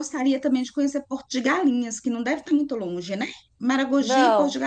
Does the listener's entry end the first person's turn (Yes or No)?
No